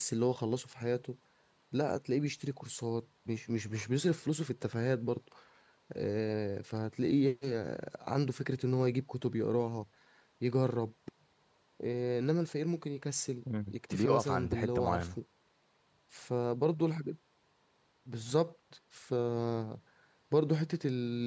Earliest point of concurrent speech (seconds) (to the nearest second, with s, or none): 13 s